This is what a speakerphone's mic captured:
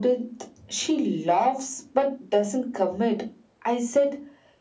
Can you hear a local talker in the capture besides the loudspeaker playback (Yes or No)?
No